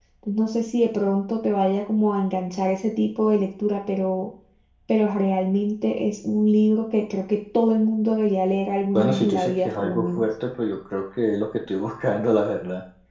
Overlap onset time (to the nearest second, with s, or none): 9 s